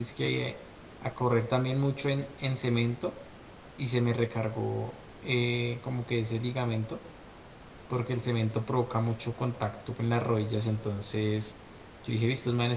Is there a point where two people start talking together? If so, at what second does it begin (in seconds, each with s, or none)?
none